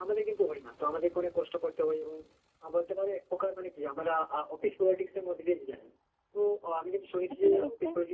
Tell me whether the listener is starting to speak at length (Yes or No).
No